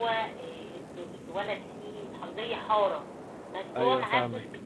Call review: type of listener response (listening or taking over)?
listening